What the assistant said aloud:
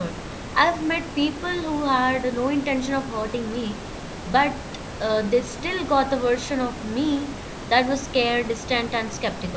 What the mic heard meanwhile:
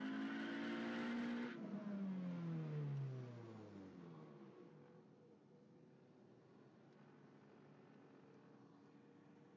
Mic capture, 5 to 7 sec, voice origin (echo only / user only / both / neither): neither